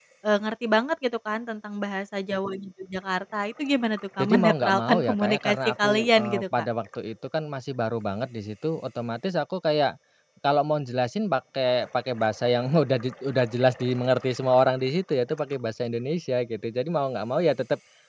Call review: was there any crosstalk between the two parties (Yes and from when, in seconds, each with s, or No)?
Yes, from 4.2 s